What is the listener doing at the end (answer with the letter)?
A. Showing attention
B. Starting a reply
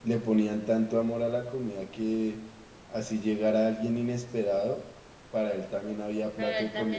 B